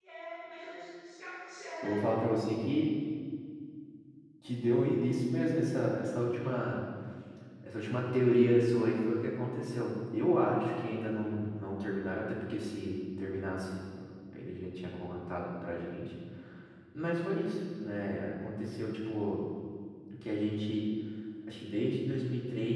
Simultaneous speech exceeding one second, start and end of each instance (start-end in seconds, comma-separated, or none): none